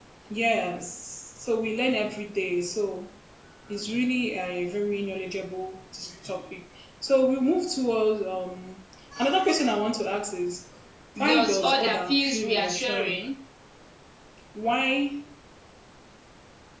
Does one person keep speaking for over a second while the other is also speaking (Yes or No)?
Yes